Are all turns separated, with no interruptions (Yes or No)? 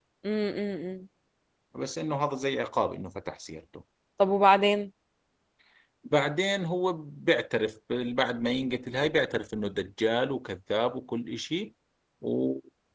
Yes